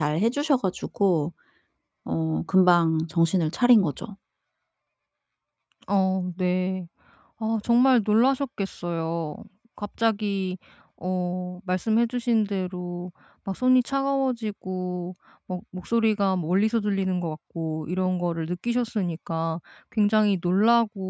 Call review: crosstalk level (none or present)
none